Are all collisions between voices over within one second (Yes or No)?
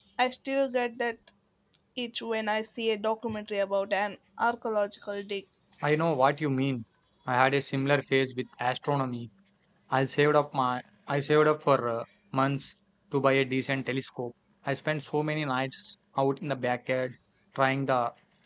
Yes